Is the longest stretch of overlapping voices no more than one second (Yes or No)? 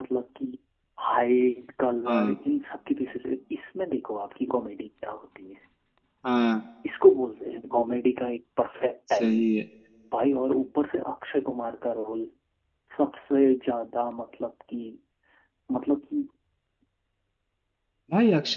Yes